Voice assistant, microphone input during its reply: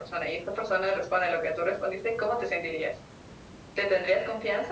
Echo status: present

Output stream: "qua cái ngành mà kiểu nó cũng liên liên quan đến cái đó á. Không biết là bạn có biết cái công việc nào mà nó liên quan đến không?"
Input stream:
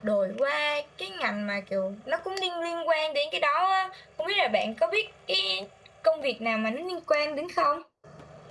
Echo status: present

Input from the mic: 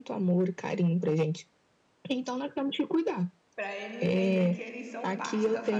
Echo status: present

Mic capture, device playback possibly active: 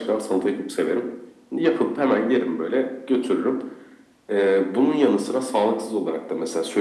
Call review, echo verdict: present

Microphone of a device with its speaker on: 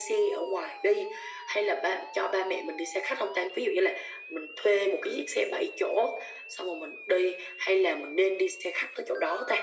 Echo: present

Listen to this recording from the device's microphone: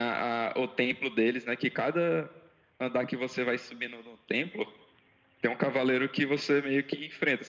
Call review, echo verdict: present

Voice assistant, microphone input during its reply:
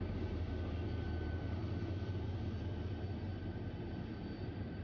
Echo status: none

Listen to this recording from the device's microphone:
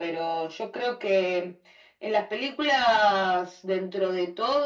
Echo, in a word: present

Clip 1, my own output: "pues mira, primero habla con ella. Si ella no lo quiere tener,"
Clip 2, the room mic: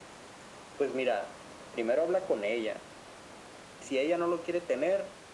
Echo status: present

